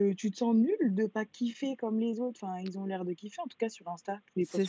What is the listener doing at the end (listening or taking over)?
taking over